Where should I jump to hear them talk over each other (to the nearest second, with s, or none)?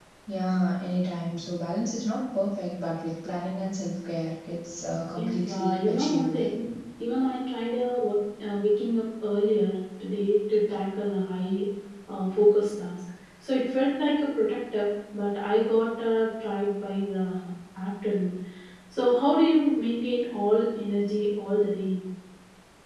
5 s